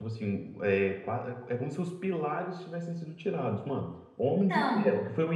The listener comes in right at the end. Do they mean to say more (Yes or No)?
No